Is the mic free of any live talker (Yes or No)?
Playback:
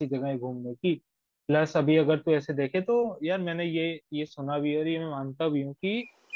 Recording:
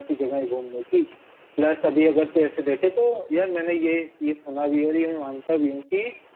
Yes